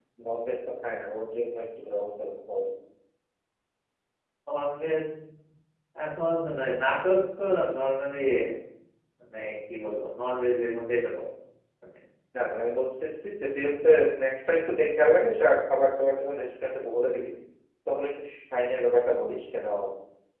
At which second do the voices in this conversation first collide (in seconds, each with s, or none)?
none